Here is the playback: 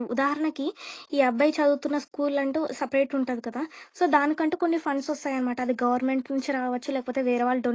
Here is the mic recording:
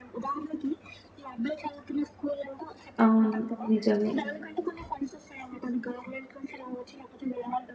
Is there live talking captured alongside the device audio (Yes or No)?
Yes